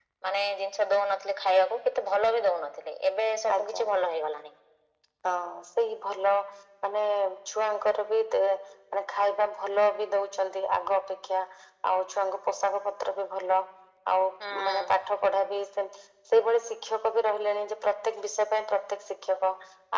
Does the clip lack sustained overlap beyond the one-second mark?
Yes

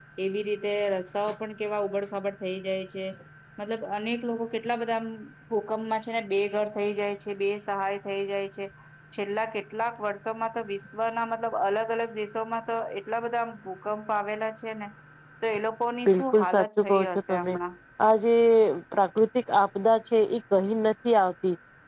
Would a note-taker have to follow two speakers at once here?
Yes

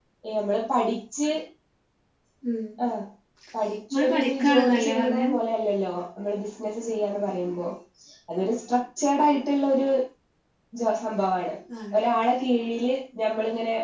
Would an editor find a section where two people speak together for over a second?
Yes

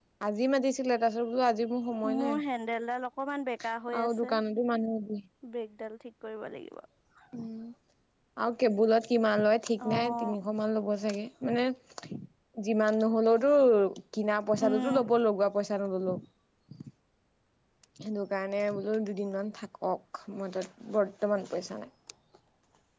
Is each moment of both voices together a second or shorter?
Yes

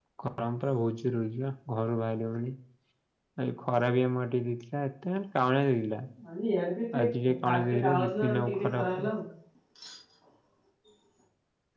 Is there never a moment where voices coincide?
No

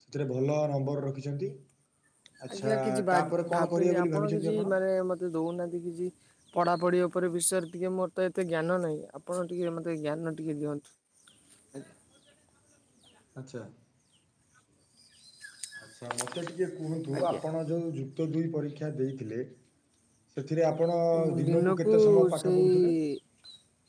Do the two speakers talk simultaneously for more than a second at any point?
Yes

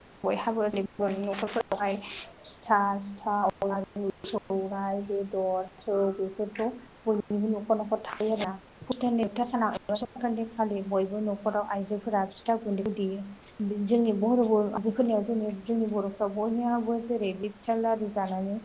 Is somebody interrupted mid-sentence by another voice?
No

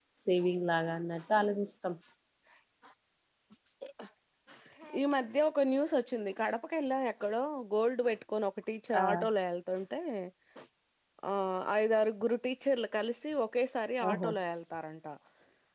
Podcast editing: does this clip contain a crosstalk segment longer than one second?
No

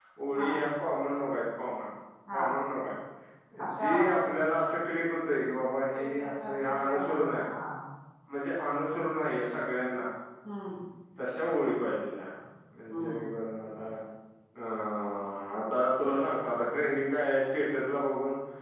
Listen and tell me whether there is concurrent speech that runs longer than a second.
Yes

